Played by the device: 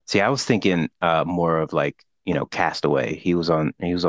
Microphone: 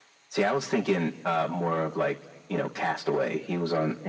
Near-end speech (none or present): none